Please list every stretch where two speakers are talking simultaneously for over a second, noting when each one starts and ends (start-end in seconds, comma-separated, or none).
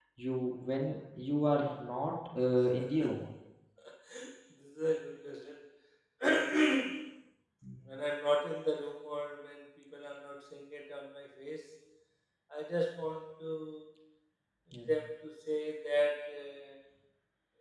none